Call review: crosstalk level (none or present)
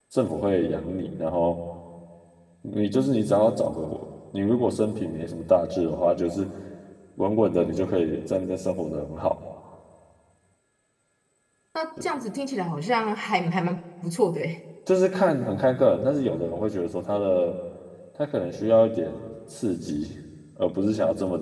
none